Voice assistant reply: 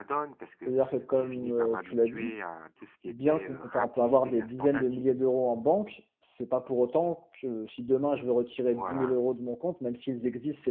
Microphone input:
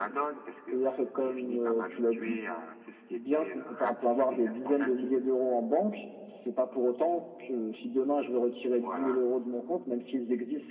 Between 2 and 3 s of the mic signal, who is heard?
echo only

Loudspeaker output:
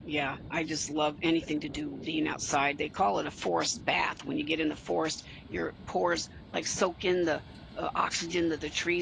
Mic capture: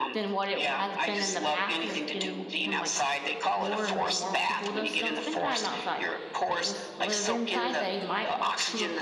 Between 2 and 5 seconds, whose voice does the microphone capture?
both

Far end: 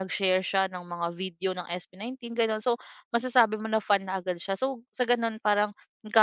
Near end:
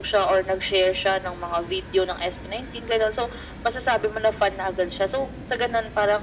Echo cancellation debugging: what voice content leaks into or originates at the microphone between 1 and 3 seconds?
echo only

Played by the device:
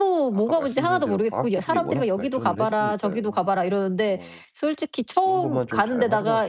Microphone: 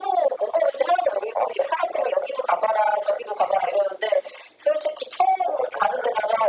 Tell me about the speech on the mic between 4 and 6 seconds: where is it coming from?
echo only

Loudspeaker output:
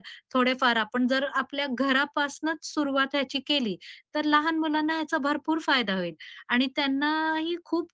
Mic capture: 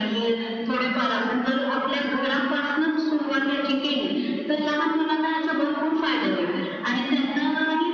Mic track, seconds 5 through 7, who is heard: echo only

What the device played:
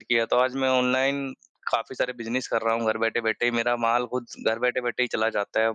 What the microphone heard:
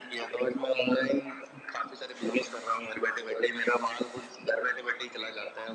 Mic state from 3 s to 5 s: echo only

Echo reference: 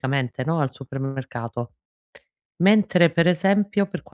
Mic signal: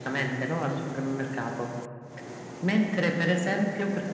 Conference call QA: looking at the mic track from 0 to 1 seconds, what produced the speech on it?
echo only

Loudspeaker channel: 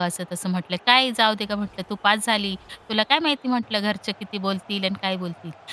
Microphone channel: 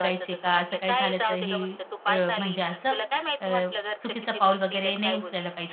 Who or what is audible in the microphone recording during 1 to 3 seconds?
both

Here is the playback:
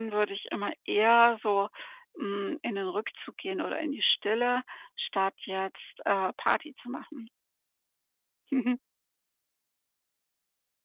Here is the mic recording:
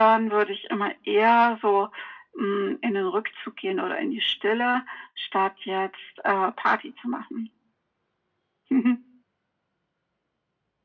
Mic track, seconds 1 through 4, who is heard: echo only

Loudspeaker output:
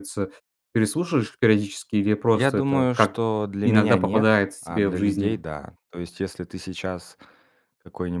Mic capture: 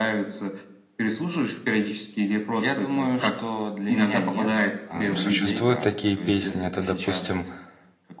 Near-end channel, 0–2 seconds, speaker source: echo only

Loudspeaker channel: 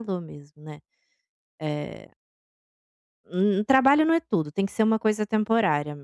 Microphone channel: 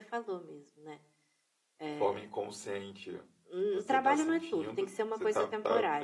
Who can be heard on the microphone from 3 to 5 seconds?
both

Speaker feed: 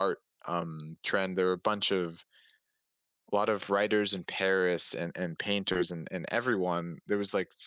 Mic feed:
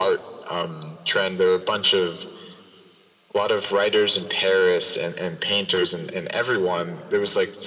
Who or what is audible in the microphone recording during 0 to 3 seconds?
echo only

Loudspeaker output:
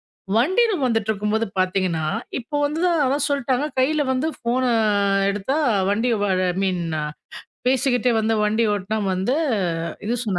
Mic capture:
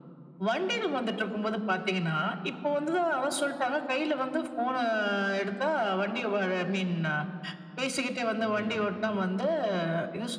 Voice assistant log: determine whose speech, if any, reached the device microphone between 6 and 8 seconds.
echo only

